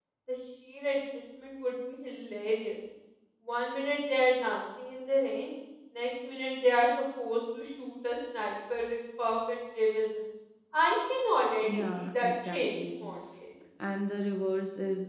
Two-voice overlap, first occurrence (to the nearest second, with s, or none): 12 s